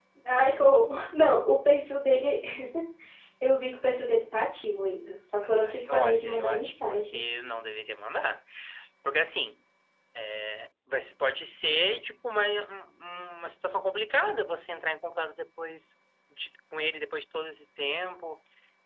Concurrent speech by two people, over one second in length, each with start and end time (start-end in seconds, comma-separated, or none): 5.4-7.2